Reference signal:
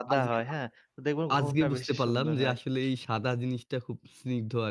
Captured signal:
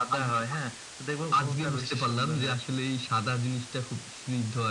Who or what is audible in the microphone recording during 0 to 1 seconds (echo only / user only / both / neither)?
echo only